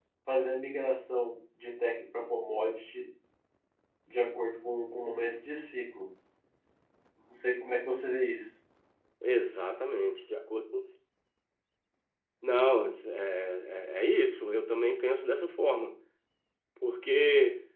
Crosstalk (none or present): none